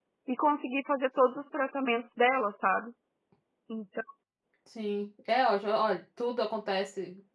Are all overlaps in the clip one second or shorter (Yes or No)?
Yes